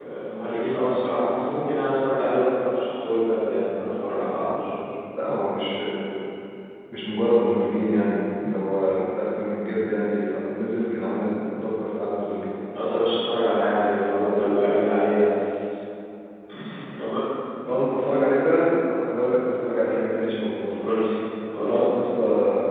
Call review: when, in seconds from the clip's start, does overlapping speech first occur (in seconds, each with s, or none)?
none